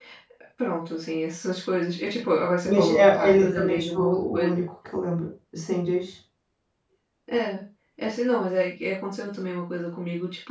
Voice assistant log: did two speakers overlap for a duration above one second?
Yes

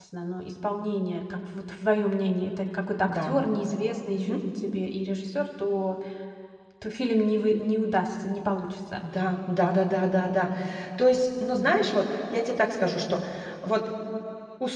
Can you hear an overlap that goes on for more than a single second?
No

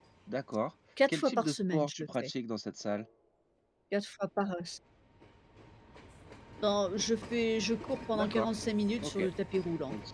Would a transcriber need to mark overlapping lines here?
Yes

